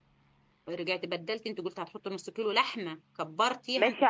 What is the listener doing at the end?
taking over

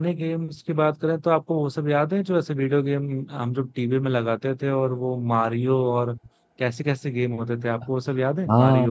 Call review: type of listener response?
taking over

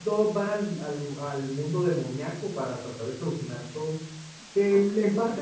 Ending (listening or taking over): listening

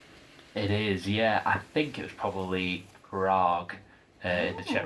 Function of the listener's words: listening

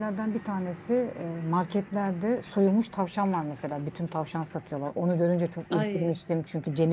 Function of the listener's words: listening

